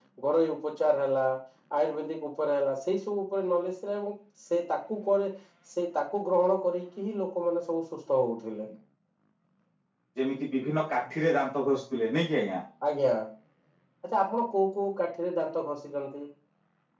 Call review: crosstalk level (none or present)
none